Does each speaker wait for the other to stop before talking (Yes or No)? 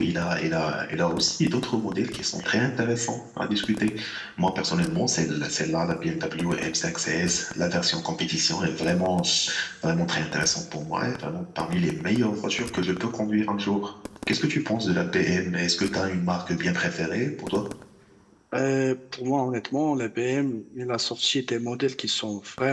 Yes